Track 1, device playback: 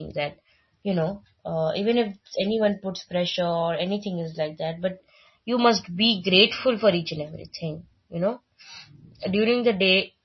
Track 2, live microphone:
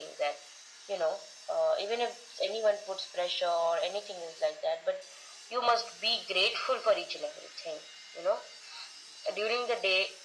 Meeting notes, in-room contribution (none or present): none